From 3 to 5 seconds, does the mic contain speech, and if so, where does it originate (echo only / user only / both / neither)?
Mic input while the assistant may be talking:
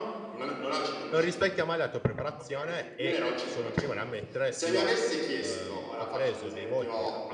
both